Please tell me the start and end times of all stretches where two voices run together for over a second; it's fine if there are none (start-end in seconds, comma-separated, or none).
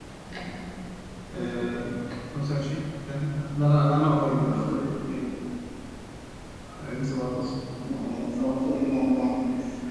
none